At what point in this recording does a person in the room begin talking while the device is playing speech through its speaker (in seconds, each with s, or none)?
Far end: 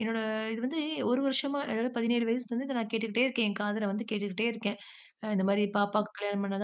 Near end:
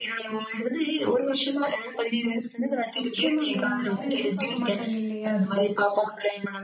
3.0 s